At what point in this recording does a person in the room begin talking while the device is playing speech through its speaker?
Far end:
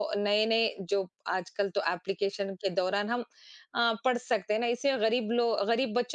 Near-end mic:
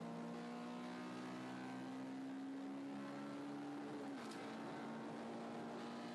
none

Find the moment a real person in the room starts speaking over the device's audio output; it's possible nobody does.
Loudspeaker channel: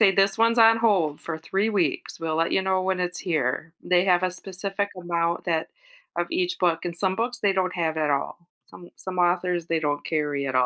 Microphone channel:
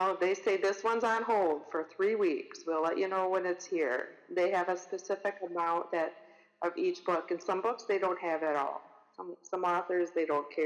none

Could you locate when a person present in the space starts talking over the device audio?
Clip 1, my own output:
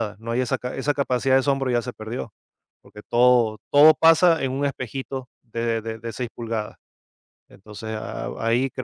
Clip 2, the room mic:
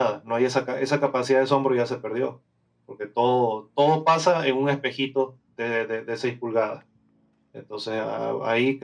none

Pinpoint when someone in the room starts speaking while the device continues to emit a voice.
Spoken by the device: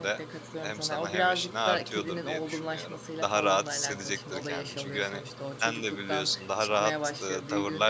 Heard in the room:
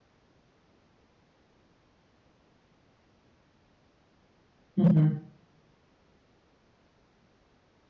4.8 s

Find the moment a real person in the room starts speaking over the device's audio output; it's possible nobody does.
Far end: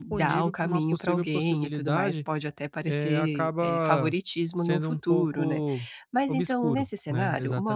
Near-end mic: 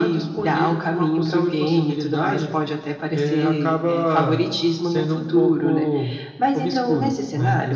none

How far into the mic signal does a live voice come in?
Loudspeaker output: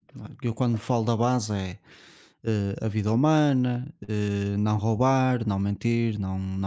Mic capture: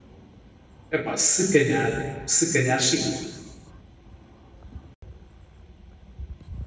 0.9 s

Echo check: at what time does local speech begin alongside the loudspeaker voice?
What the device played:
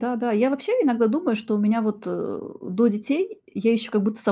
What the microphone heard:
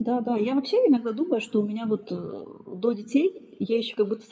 none

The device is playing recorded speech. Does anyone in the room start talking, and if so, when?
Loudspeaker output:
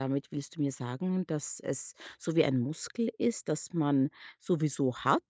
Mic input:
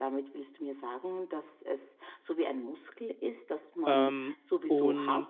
3.9 s

